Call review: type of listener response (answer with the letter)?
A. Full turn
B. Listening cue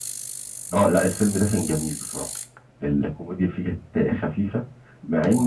B